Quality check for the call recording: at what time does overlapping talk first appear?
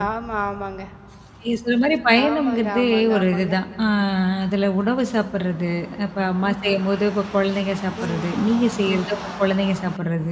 2.3 s

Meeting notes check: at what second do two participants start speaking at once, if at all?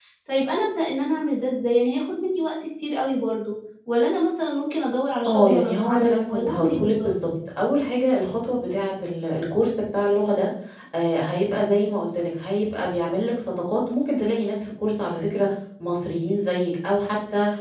5.2 s

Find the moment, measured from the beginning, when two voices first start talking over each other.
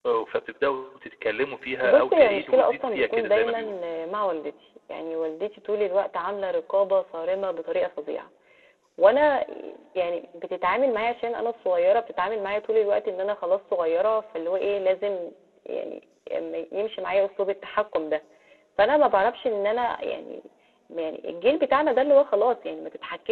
1.8 s

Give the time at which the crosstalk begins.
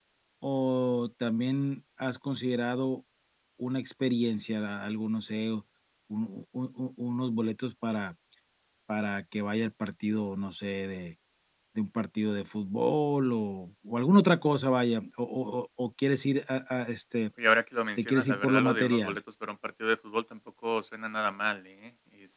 18.0 s

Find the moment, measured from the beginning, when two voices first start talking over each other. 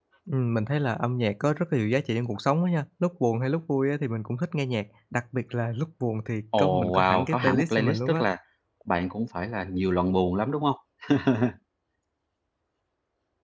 6.5 s

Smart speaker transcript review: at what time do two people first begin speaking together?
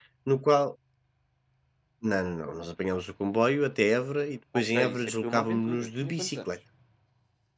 4.5 s

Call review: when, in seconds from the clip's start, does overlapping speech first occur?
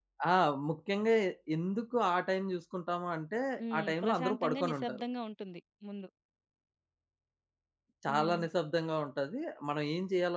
3.8 s

